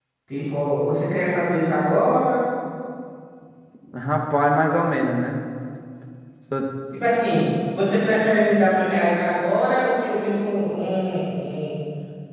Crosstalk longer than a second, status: none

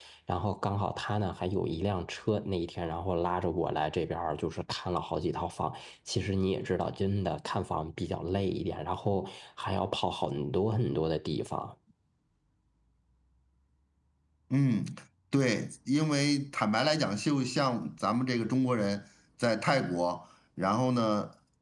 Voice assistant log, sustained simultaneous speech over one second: none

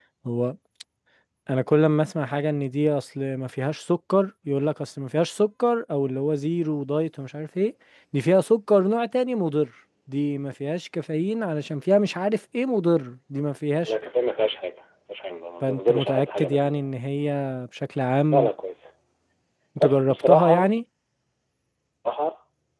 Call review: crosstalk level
present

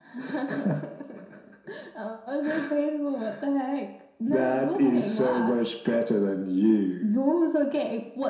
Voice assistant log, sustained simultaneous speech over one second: present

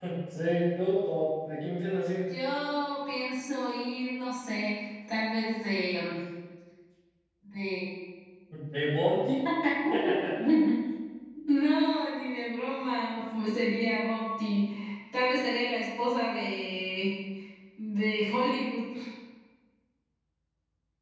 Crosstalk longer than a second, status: none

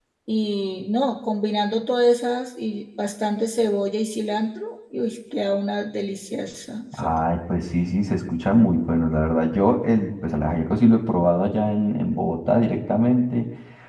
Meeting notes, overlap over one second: none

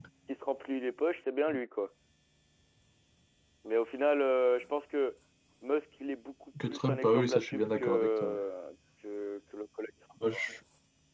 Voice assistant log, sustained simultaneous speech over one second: present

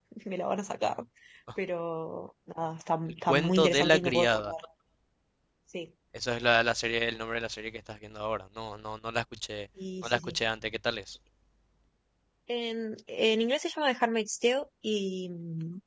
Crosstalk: present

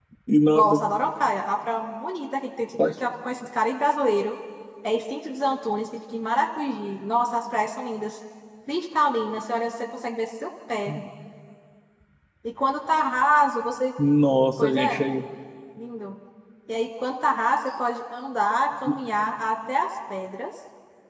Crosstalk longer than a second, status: none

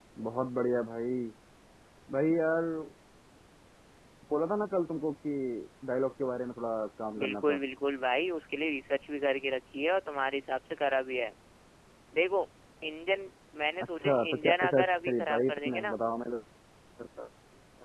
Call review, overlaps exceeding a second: present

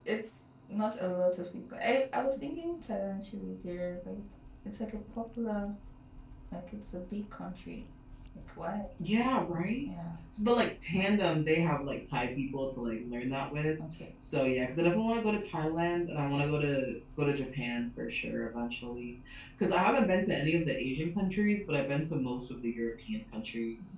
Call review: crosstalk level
none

